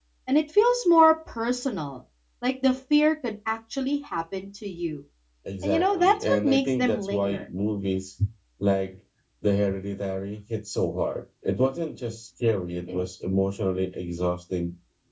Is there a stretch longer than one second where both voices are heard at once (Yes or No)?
Yes